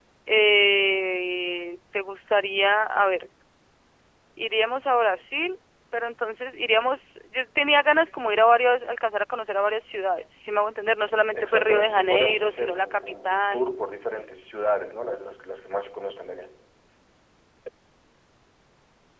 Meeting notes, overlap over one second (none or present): present